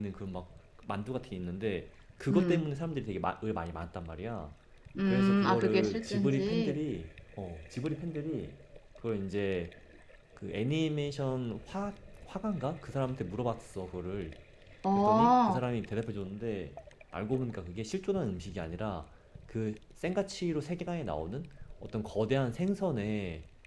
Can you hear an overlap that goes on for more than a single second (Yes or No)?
Yes